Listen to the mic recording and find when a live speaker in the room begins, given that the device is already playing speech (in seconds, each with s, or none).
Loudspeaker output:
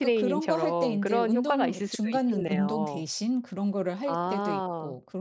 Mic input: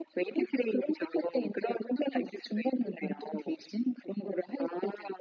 none